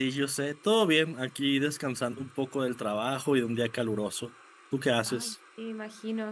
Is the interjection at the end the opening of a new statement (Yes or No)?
Yes